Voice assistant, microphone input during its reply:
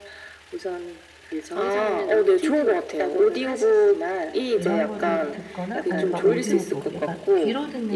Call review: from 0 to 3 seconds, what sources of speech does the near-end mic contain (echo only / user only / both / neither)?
echo only